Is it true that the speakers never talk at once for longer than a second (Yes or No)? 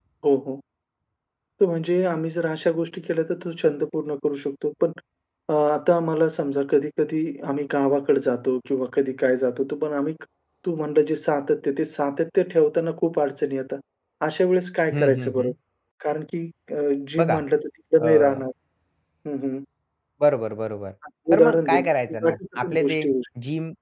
No